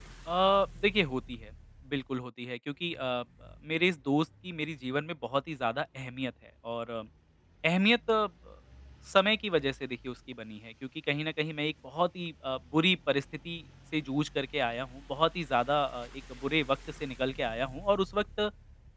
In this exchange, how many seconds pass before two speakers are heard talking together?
none

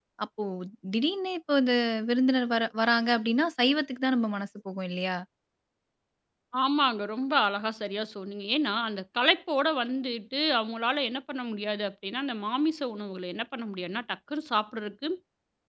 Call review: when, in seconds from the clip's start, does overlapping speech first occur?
none

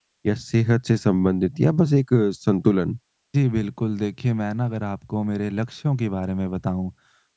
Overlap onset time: none

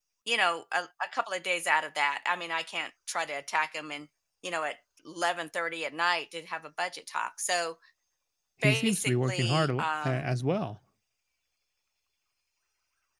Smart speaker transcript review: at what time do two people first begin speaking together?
9 s

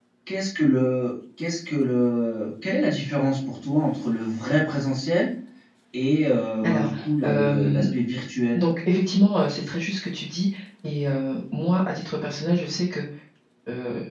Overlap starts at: 7 s

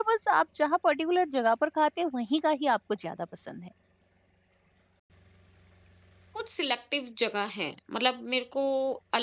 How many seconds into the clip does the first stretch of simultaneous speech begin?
none

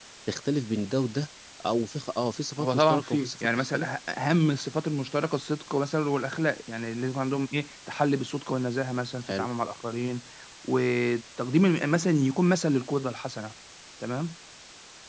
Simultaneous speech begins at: 3 s

